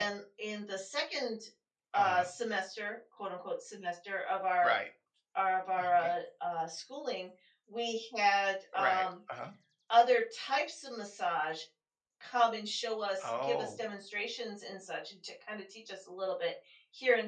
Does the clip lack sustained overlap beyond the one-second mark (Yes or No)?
Yes